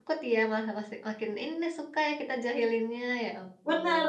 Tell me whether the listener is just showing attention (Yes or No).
No